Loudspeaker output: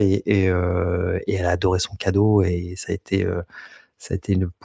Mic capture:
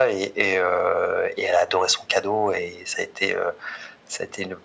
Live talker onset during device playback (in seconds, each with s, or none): none